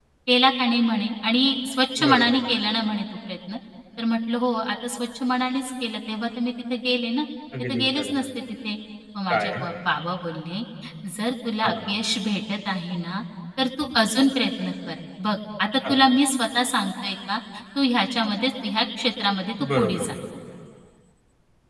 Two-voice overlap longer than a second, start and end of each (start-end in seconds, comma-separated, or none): none